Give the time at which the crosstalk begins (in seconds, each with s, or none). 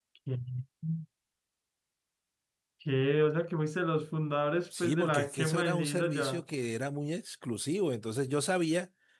4.7 s